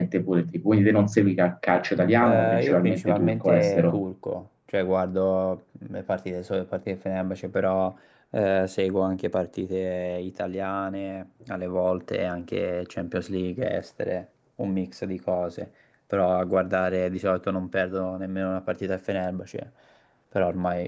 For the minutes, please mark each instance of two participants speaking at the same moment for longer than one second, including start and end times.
2.2-4.0

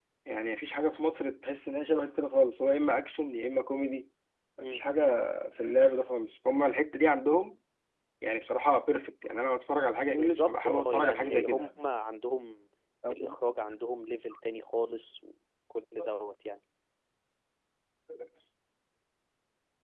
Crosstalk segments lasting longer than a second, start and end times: 10.1-11.7

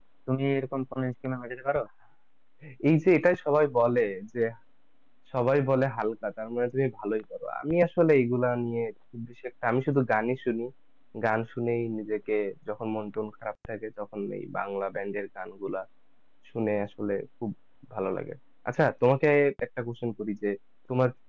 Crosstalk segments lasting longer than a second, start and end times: none

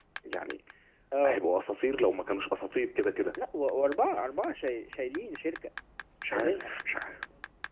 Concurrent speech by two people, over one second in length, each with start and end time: none

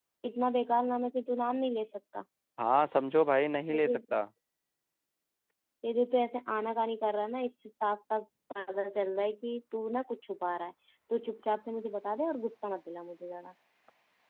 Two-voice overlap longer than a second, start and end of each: none

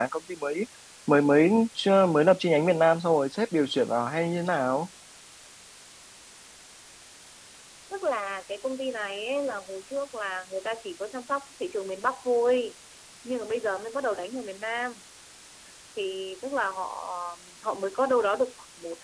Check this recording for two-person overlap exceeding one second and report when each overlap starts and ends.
none

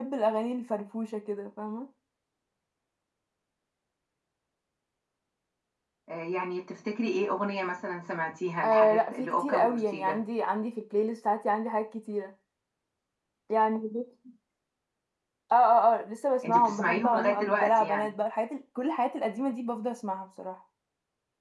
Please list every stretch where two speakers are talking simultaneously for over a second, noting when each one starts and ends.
8.6-10.2, 16.4-18.1

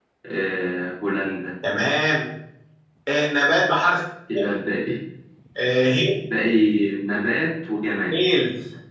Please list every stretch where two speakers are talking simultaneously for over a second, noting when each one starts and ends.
none

